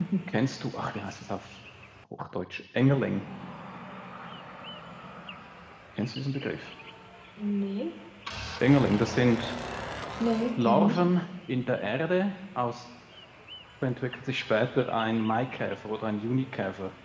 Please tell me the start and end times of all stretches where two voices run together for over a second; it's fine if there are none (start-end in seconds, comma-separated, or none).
none